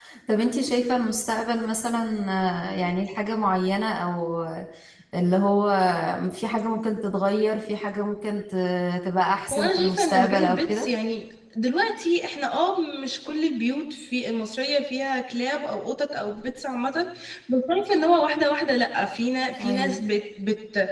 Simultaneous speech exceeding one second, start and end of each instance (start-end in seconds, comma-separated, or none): 9.5-10.9